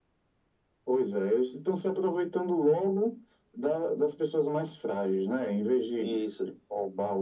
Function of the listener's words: listening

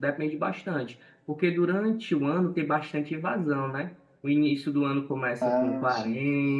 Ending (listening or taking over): listening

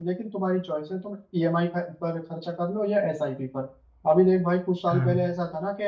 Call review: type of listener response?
listening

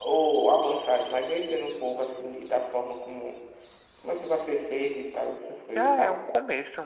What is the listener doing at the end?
taking over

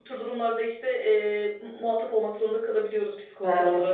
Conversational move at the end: taking over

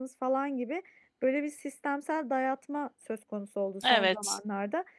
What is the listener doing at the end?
listening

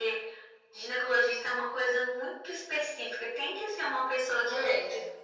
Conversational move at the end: listening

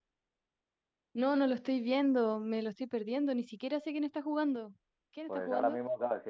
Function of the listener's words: taking over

